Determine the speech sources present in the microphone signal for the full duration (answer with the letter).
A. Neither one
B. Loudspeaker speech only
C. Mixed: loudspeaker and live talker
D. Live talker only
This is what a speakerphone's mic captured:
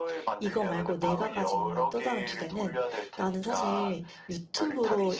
C